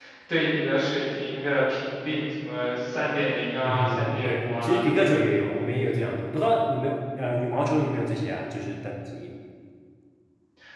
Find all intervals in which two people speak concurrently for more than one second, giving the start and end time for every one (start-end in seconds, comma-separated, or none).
3.6-5.2